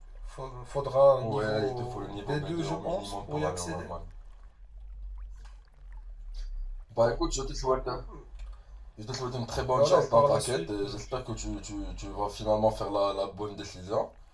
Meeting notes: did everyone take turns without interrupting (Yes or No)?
No